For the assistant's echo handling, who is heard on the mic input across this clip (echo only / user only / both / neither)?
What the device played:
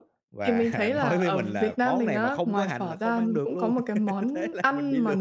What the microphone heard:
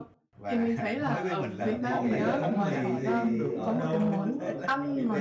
both